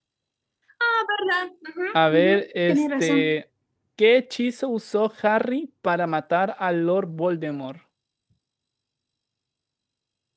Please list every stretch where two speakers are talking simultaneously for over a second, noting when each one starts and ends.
1.9-3.4

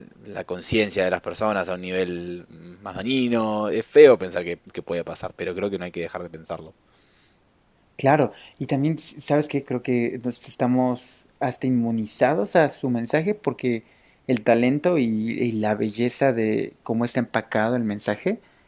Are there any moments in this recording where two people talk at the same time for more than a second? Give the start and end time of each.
none

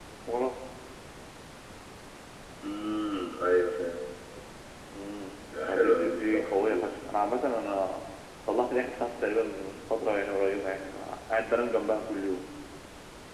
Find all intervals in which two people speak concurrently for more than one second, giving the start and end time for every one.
5.7-6.9

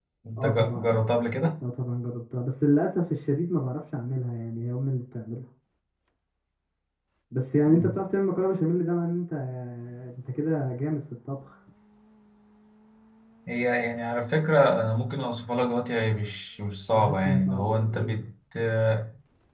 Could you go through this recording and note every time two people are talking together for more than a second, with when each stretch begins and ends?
16.9-18.2

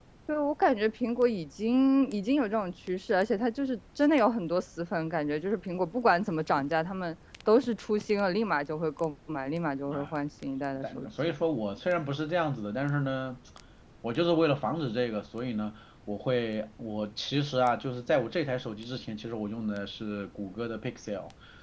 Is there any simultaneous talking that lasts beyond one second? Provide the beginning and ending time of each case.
none

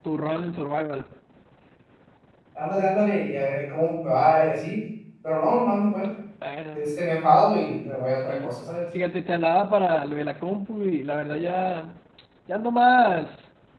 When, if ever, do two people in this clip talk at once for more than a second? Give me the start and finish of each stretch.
none

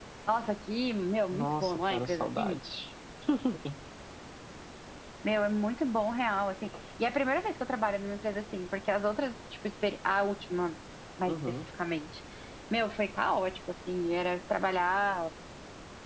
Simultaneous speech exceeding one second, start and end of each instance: 1.3-2.6

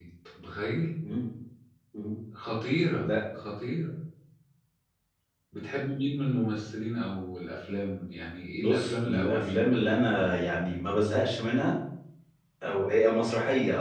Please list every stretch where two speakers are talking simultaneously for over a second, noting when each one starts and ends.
8.6-10.3

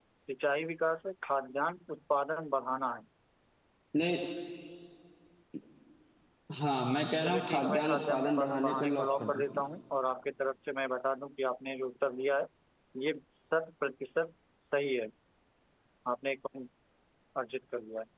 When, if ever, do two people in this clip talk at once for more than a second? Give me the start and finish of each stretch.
7.2-9.4

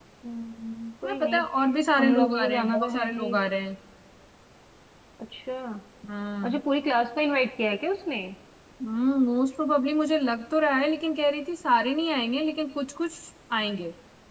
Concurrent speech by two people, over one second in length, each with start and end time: 2.0-3.3

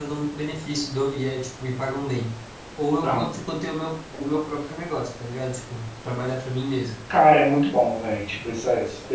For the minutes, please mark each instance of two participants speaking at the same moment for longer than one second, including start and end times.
none

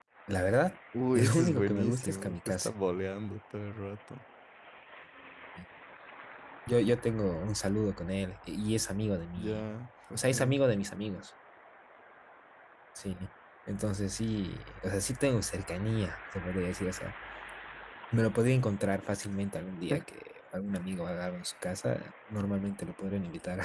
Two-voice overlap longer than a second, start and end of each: 1.1-2.7

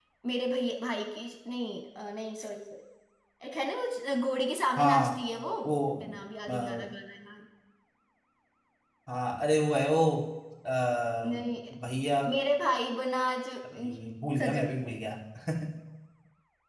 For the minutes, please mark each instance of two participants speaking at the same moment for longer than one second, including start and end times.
none

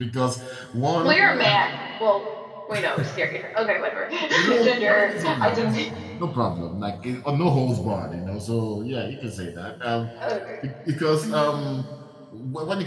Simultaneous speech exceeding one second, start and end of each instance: 4.6-5.8

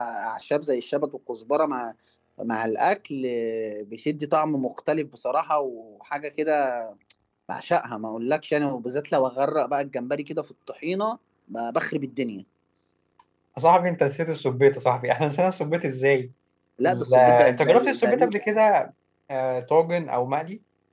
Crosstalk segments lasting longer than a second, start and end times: 16.9-18.3

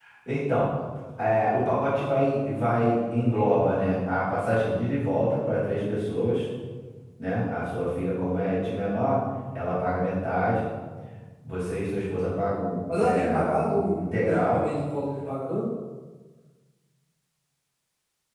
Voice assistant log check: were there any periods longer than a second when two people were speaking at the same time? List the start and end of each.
12.9-14.6

